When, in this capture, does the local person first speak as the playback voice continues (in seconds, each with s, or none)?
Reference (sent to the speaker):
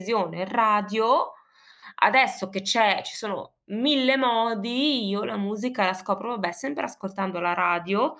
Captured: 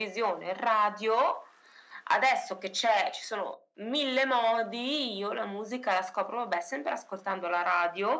none